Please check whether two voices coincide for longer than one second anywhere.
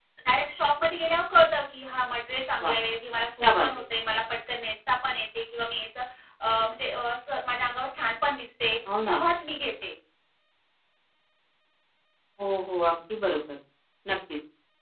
No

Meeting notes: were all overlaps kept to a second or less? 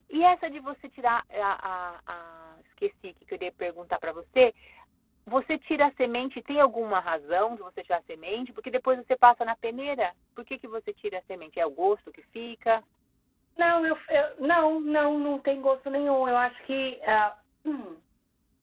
Yes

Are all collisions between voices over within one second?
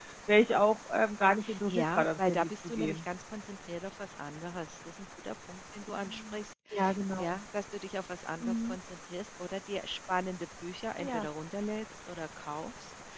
No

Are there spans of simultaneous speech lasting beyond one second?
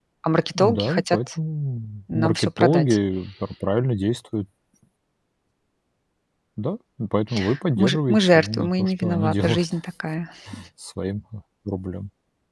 Yes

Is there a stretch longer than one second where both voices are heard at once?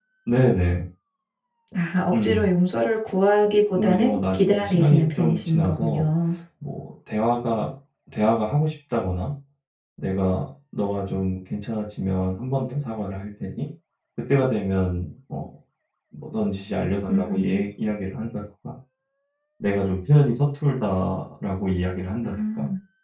Yes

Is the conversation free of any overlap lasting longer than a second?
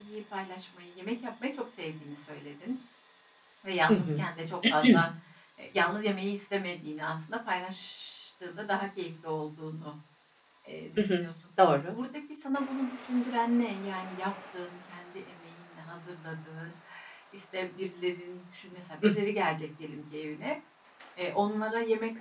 Yes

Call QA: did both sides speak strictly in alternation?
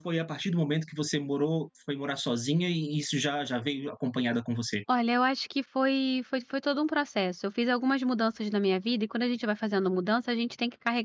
Yes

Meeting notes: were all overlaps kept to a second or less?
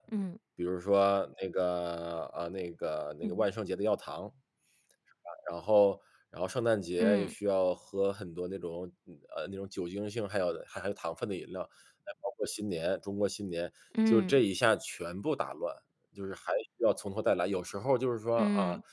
Yes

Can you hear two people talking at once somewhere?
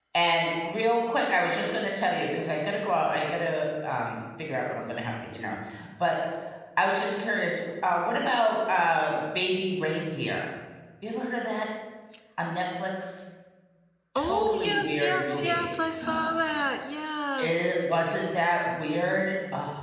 Yes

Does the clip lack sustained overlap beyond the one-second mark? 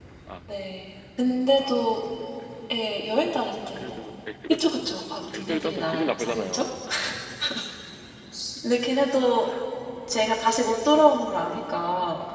No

